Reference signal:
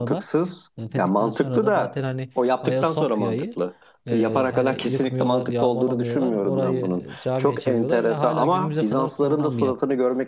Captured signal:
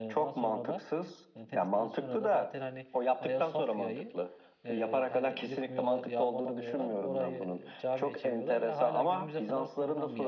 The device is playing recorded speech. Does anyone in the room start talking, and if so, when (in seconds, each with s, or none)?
none